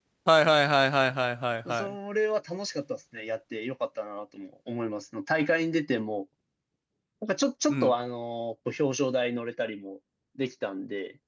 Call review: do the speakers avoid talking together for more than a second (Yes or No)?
Yes